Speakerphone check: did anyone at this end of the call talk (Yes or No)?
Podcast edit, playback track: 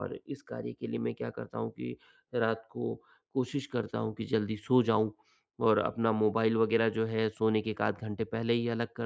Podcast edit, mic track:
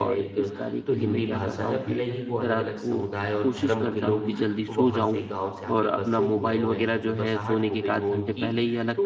Yes